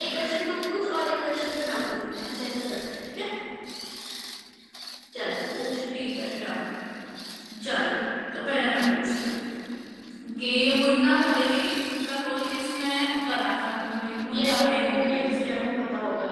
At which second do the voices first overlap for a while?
14.3 s

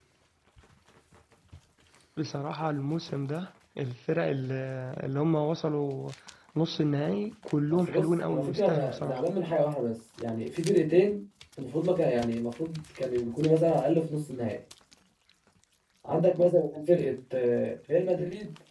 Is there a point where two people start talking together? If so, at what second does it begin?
7.7 s

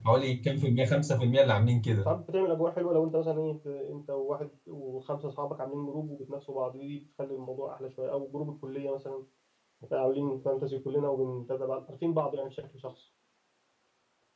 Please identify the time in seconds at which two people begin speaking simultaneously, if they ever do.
none

